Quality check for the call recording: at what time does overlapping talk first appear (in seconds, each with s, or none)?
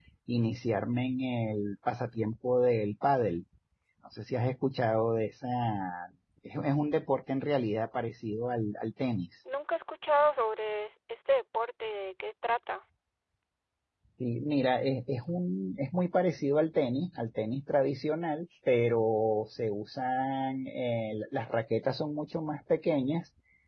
none